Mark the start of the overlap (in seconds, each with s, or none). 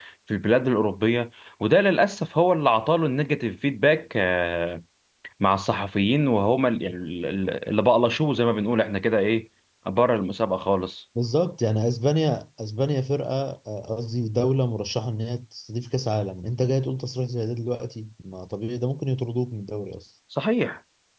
none